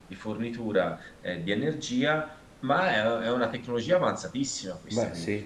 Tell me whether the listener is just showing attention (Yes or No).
Yes